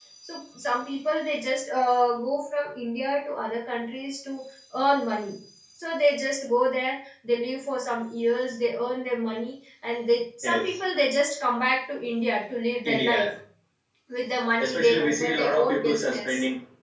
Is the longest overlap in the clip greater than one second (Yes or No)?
Yes